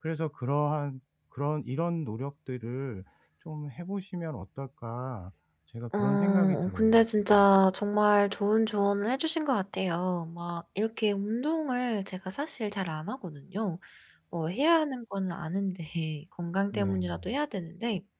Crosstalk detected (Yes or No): Yes